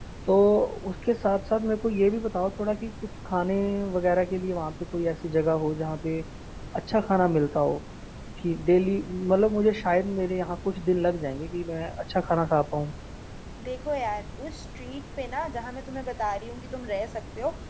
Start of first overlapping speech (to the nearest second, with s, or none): none